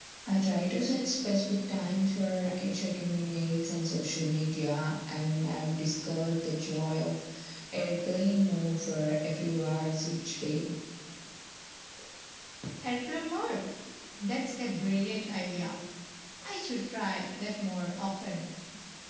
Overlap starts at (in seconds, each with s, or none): none